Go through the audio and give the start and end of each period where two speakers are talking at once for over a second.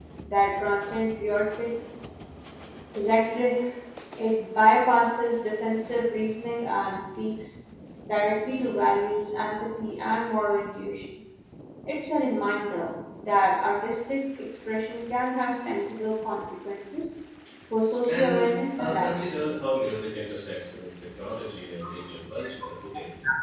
18.1-19.4

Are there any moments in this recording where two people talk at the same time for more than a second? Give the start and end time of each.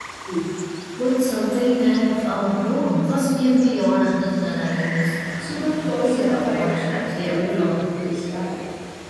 5.4-7.9

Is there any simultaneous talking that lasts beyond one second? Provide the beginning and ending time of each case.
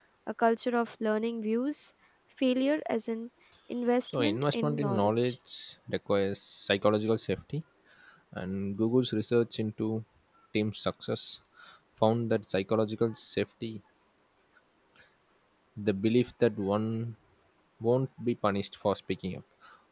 4.1-5.3

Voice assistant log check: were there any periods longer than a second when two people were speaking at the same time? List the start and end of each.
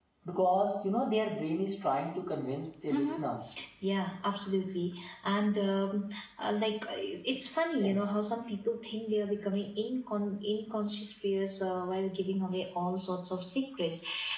none

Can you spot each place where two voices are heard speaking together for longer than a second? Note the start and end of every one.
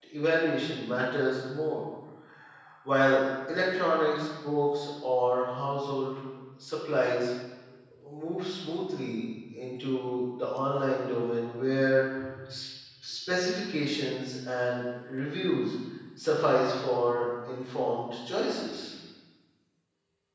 none

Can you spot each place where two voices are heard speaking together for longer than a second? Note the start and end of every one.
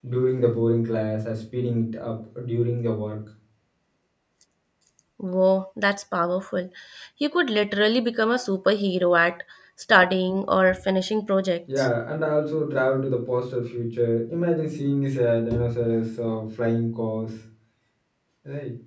none

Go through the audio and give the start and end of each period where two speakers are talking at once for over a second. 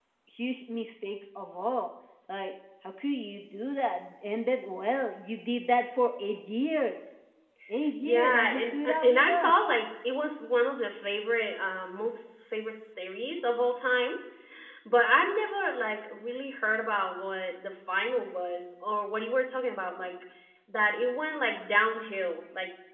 8.0-9.6

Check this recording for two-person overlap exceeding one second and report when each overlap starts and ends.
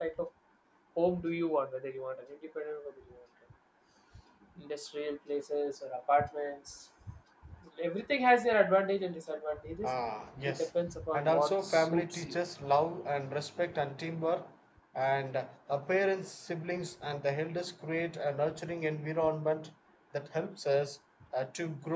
11.1-12.3

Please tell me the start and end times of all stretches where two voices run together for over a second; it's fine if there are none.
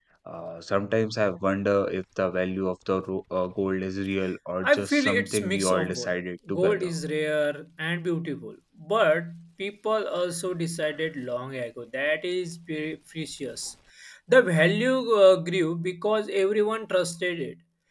4.6-6.1

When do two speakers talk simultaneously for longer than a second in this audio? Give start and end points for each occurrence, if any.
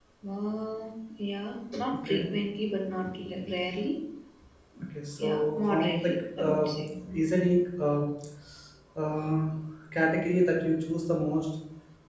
5.2-6.7

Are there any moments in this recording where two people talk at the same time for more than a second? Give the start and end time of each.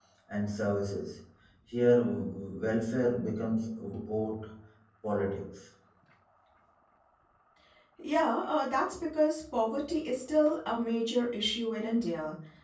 none

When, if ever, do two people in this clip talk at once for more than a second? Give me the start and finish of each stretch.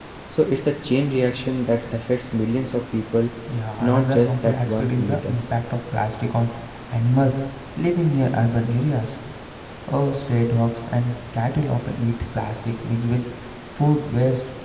3.8-5.4

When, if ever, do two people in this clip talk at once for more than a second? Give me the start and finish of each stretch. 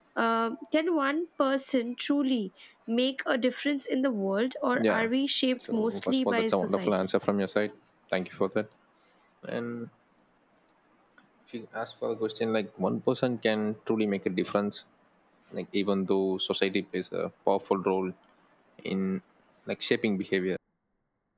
5.7-7.1

